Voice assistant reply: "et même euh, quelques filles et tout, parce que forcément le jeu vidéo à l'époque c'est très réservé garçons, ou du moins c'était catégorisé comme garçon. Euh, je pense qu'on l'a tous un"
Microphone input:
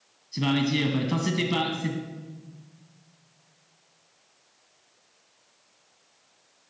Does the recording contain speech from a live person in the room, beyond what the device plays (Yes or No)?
Yes